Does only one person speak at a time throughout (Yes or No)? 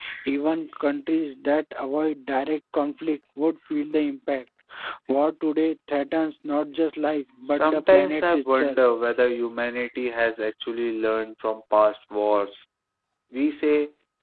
No